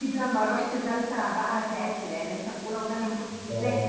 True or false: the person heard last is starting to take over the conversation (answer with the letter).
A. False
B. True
B